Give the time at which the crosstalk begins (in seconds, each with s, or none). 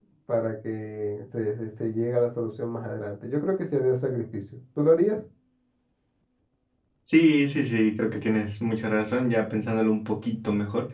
none